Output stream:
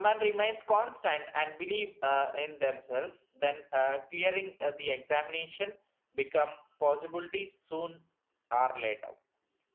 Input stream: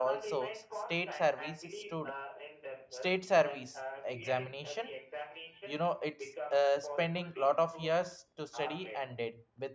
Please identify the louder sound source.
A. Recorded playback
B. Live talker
B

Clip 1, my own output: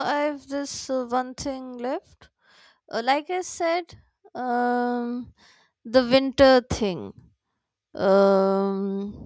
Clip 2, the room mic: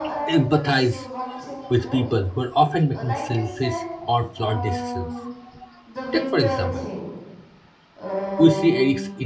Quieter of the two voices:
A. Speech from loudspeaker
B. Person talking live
A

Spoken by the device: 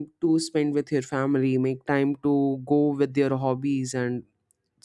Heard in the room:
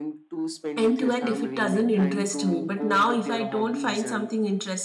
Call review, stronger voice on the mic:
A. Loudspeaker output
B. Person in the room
B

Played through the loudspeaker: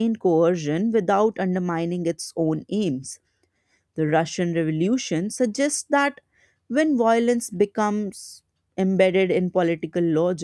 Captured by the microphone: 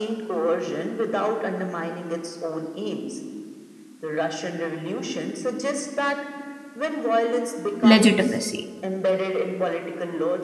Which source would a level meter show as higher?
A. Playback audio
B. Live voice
B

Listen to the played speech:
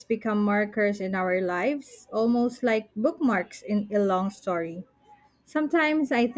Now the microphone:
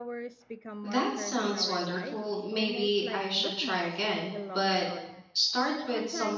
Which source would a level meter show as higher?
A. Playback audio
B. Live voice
B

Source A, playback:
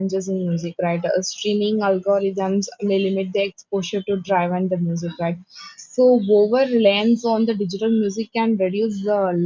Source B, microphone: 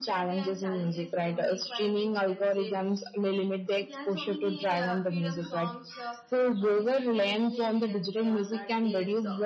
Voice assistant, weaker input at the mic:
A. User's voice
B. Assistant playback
A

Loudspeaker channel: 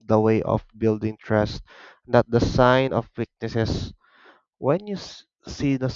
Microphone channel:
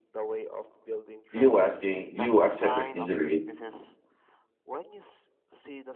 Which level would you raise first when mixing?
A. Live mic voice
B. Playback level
B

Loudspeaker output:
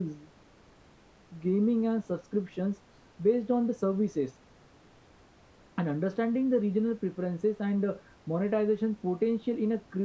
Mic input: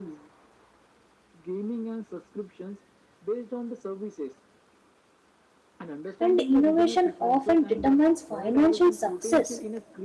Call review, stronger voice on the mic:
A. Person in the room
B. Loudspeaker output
A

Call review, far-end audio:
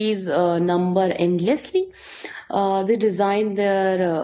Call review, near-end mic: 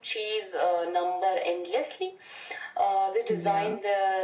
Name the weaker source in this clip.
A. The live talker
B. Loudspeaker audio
A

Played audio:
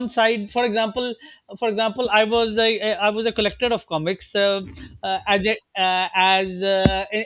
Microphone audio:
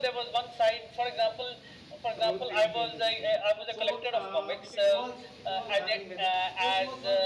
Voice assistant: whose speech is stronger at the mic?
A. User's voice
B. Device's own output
B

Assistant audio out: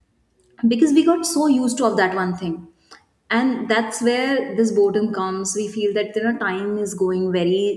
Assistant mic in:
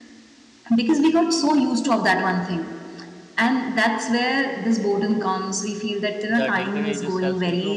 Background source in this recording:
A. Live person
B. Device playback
A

